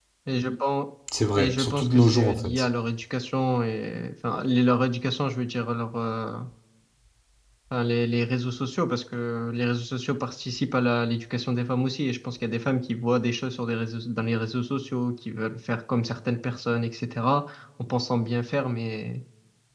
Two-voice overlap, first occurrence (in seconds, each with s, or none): 1.4 s